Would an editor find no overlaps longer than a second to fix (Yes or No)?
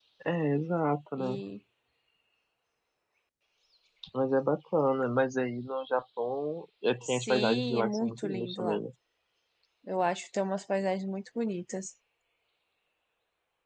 No